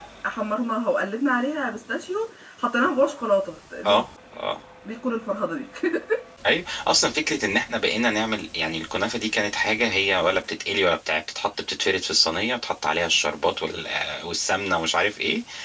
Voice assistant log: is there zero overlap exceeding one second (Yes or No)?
Yes